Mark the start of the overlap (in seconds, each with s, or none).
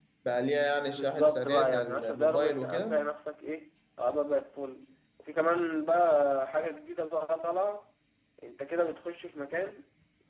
1.0 s